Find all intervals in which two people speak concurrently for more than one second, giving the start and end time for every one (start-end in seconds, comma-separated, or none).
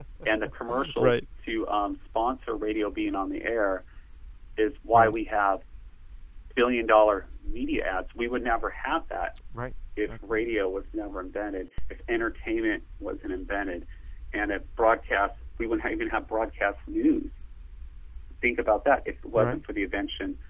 none